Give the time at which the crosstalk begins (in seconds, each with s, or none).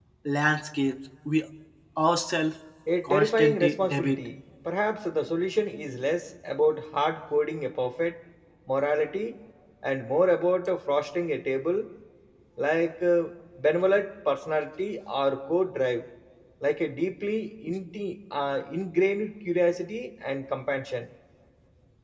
3.0 s